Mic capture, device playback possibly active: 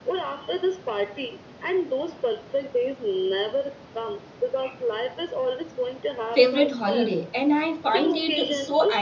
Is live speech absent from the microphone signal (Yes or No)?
No